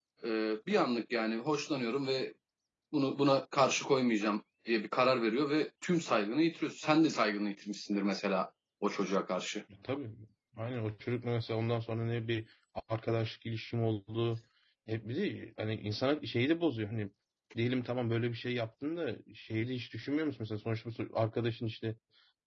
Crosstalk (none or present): none